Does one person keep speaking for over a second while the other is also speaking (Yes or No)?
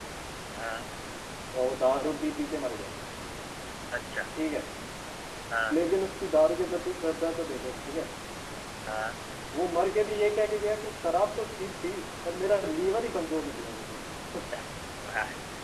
No